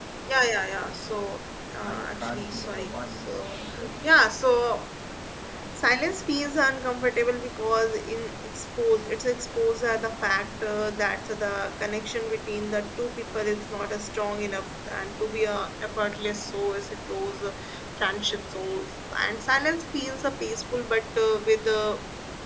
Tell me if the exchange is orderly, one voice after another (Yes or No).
No